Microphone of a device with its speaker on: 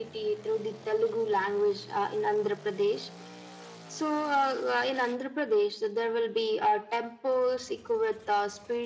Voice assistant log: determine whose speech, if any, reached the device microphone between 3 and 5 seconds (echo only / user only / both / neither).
echo only